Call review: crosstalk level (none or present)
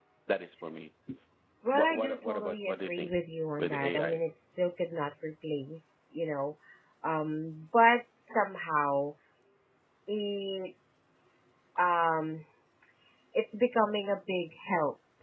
present